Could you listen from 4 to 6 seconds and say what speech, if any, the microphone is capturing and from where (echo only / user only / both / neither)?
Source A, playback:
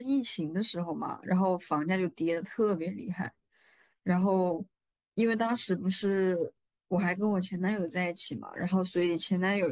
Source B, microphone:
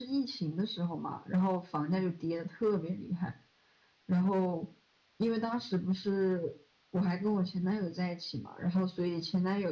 echo only